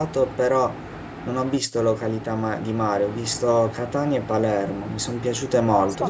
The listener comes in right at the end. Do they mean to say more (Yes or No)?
No